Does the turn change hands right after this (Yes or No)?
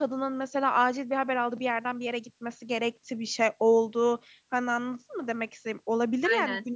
No